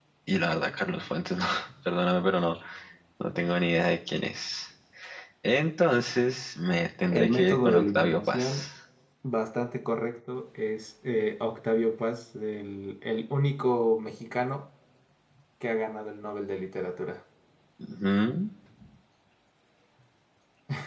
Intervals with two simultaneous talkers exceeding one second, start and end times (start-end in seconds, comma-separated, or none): 7.1-8.4